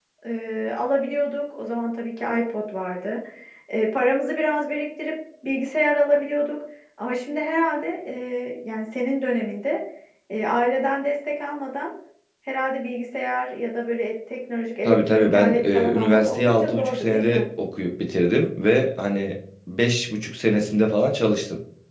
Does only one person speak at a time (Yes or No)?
No